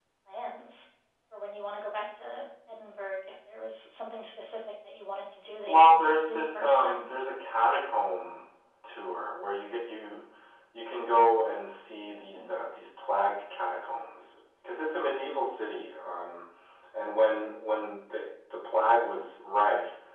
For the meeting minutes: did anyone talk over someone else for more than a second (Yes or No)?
Yes